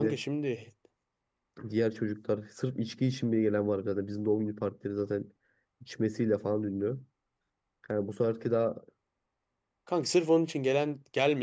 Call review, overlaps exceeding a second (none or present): none